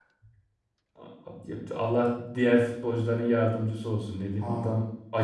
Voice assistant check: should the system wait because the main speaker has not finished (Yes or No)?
Yes